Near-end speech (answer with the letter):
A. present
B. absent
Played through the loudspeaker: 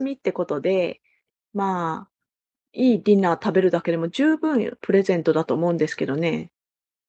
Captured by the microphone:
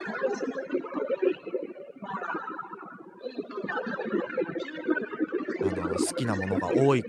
A